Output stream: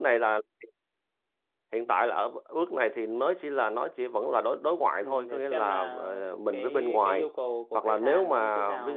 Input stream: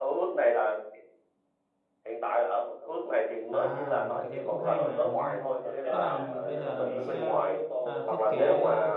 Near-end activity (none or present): present